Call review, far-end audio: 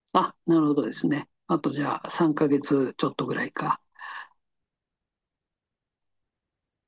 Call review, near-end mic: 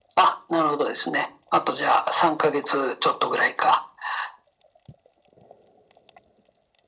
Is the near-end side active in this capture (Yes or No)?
No